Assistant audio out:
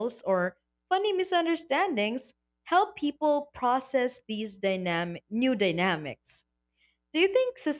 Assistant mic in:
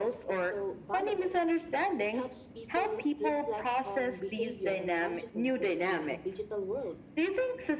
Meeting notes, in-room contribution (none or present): present